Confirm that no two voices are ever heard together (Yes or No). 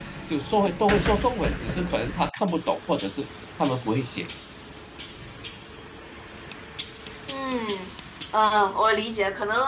Yes